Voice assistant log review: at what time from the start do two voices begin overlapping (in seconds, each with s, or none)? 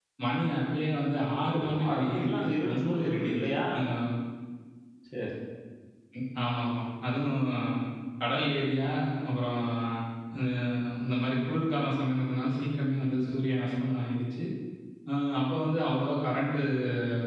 1.4 s